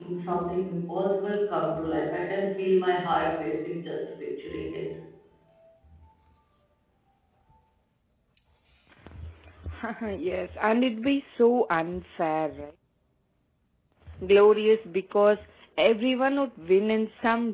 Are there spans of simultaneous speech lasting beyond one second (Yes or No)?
No